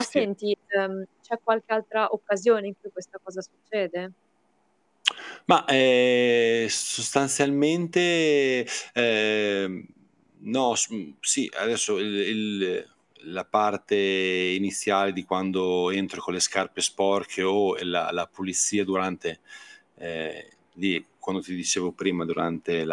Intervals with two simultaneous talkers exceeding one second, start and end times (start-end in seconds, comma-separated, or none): none